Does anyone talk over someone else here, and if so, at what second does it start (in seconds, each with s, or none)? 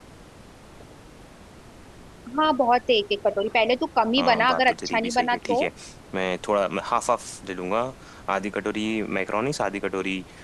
4.2 s